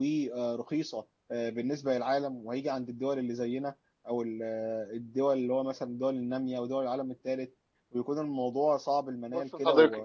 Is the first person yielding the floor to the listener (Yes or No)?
Yes